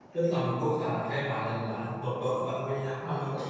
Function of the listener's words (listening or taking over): taking over